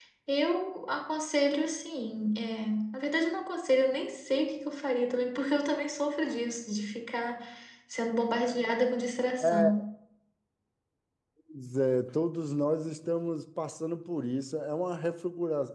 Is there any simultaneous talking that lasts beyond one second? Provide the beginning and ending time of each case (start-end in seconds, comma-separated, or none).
none